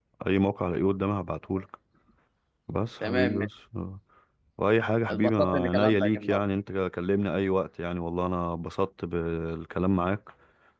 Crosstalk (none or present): present